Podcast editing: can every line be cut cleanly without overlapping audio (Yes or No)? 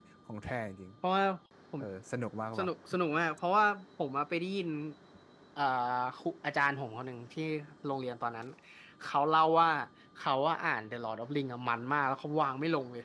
Yes